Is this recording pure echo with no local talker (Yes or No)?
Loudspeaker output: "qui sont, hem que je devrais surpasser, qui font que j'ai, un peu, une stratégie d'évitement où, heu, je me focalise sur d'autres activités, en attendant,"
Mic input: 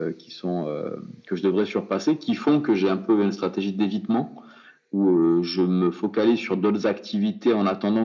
Yes